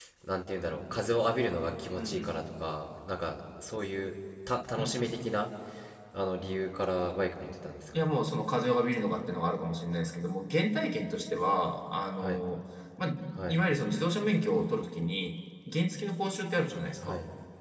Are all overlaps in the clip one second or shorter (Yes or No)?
Yes